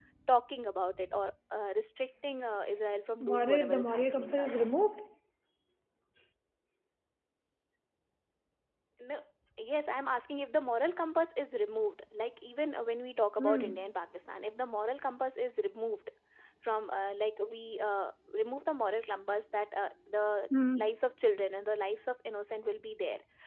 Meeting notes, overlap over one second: present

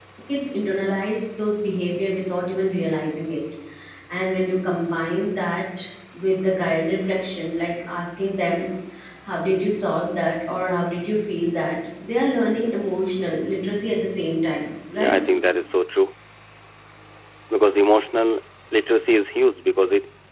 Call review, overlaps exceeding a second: none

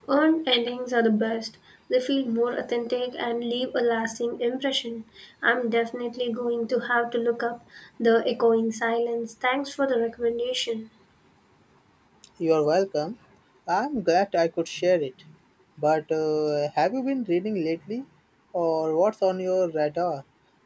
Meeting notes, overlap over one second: none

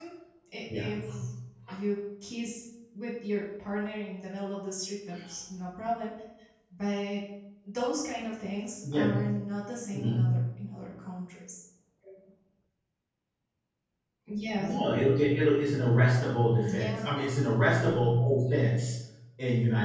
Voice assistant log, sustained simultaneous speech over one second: none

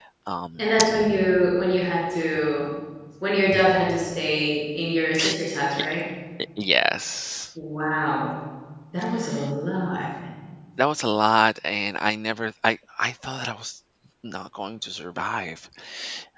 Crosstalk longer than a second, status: none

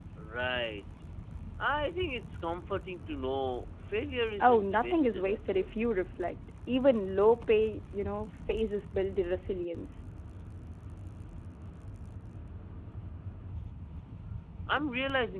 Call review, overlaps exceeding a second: present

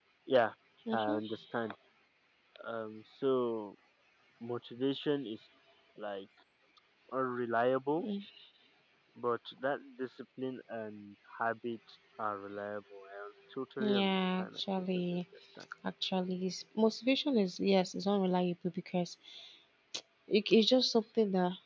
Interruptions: present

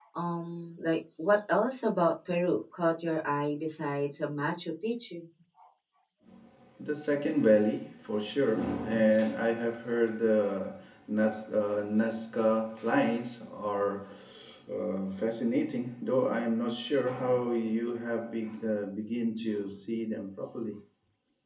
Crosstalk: none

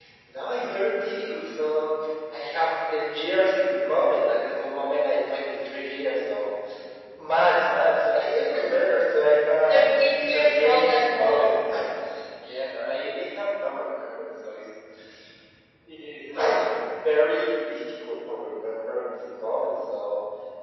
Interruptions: present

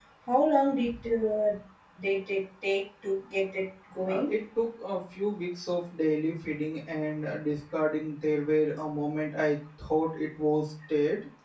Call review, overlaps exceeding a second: none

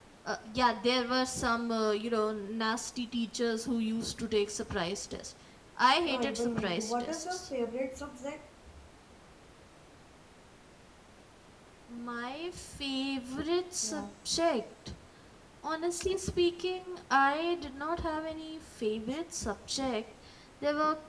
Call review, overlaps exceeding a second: present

